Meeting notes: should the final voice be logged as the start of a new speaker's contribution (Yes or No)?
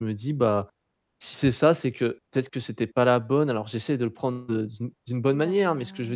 No